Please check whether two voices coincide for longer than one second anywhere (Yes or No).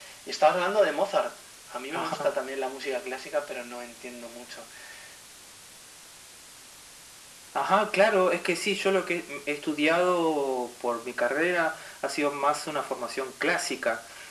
No